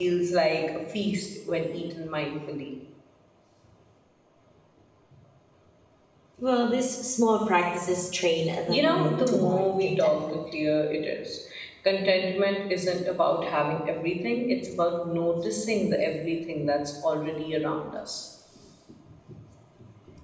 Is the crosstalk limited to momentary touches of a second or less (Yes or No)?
No